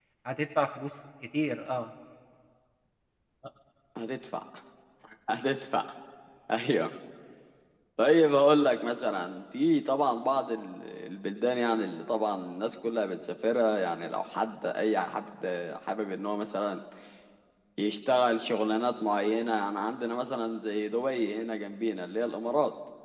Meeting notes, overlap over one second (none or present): none